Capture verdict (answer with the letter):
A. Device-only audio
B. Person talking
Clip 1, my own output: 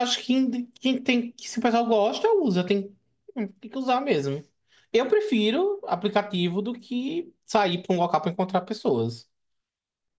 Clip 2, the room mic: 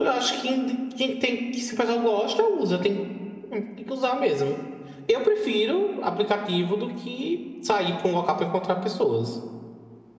A